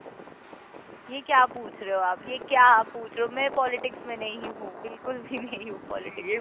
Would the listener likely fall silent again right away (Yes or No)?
No